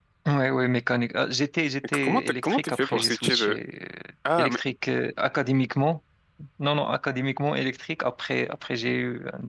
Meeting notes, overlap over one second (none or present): present